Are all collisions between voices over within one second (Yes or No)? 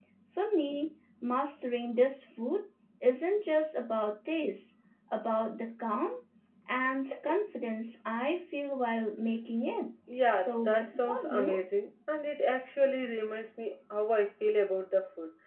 No